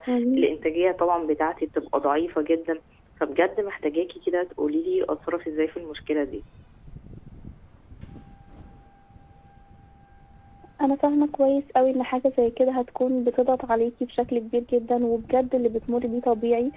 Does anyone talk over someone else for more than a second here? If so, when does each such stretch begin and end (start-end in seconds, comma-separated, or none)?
none